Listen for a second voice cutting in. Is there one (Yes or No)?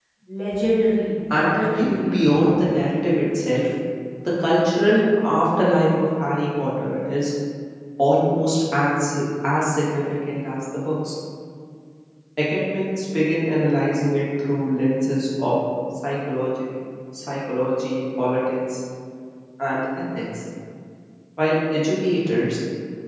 Yes